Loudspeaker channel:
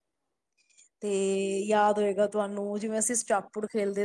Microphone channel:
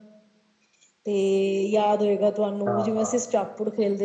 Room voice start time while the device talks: 2.7 s

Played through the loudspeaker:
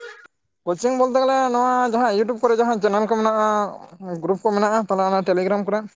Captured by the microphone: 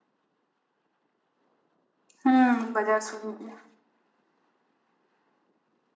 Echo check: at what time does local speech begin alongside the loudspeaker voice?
2.2 s

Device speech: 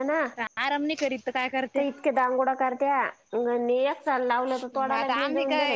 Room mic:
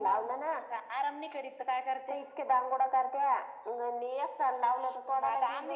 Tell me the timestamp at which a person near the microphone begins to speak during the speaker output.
none

